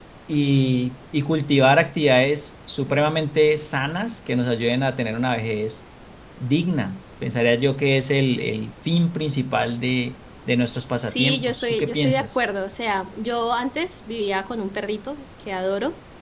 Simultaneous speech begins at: 11.1 s

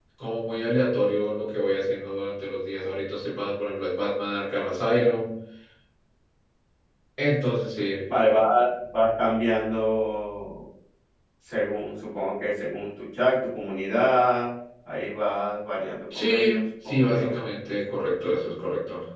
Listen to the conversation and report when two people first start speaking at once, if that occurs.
16.1 s

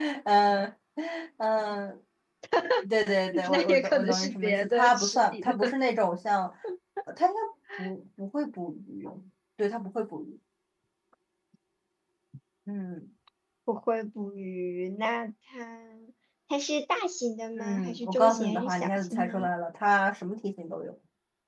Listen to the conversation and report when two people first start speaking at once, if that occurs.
3.5 s

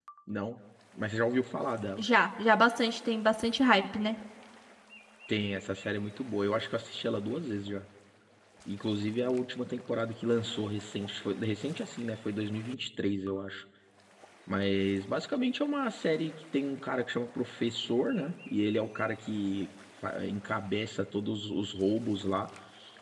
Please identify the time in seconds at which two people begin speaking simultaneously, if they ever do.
none

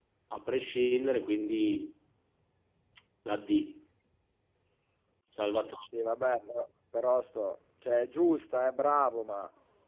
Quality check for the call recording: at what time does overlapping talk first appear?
none

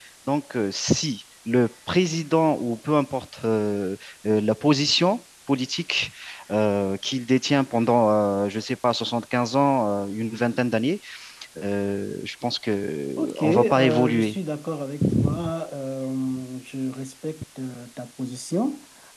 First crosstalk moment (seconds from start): 13.2 s

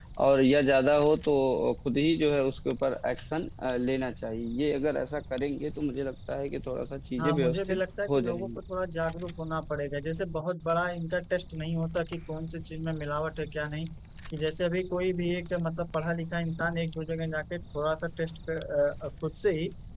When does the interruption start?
7.2 s

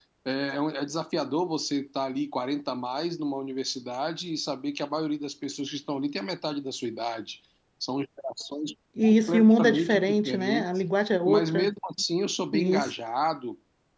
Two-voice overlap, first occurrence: 9.0 s

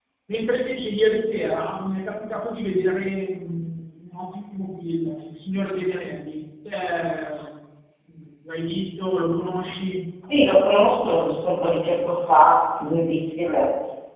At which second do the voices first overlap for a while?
none

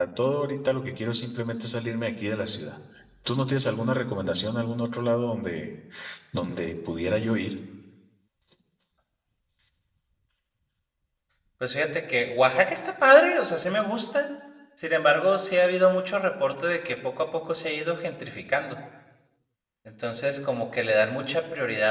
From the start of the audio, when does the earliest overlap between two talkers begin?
none

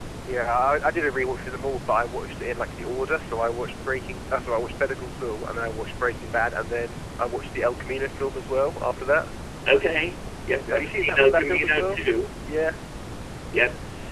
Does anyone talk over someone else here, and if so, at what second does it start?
10.5 s

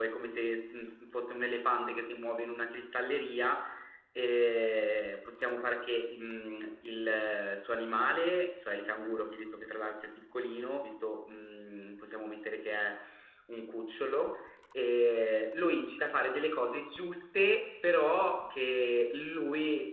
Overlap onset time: none

